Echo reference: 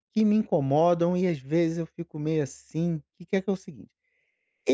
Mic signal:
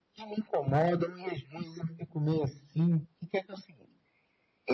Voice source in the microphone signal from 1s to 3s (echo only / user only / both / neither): echo only